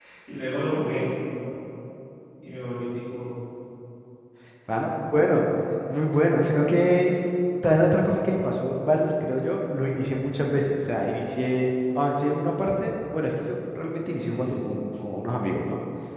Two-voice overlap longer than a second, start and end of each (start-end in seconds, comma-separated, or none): none